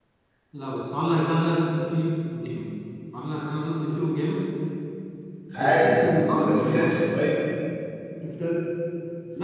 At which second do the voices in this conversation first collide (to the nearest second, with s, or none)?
6 s